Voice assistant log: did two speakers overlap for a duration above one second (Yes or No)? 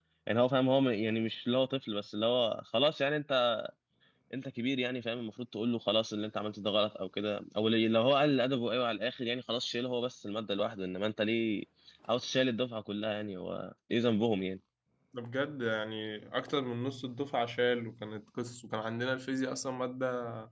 No